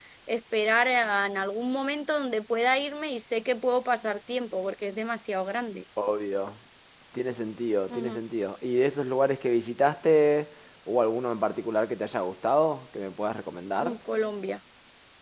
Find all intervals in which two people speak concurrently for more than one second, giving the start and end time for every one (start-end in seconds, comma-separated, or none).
none